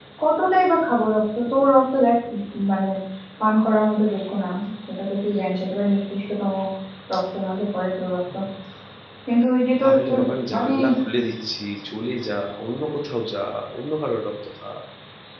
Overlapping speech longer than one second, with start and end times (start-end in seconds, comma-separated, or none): none